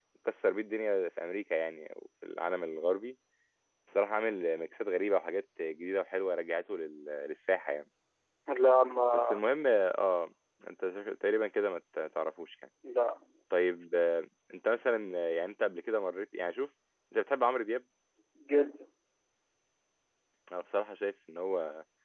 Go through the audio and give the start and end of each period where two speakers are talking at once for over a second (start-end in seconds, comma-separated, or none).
none